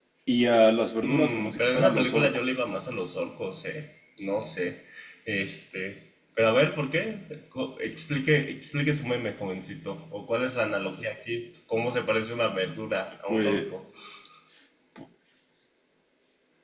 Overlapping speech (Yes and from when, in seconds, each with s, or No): Yes, from 1.0 s